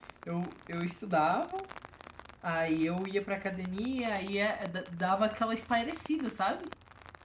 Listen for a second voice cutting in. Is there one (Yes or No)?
No